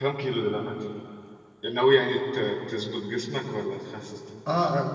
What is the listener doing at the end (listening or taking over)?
taking over